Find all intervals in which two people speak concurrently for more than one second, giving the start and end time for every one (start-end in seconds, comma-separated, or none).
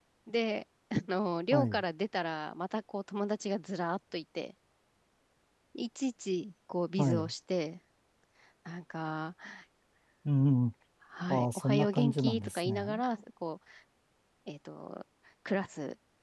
11.3-13.0